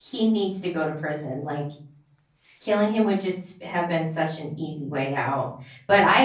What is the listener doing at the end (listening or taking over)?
listening